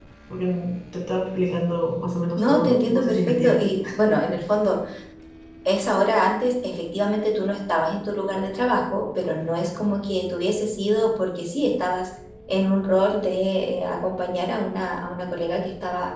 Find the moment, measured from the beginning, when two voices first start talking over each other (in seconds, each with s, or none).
2.4 s